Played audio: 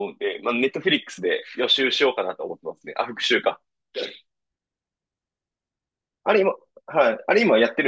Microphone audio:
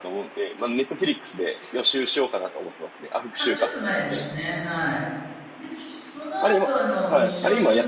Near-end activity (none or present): present